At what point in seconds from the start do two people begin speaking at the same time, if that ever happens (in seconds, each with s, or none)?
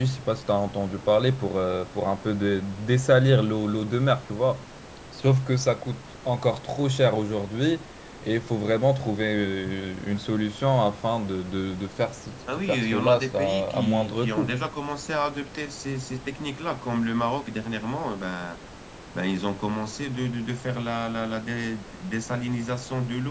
12.5 s